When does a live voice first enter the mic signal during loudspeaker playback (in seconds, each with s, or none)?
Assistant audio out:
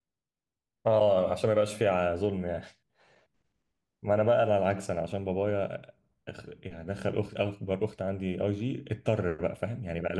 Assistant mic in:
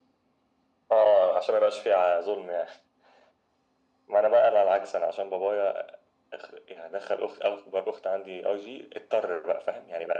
none